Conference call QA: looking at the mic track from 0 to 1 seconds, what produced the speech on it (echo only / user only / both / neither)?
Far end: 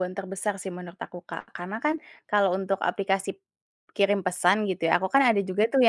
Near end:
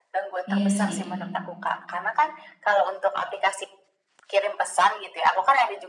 both